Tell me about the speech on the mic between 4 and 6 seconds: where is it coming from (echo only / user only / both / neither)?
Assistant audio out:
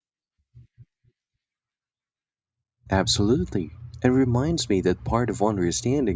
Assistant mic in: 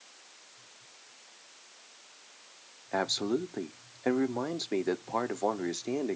echo only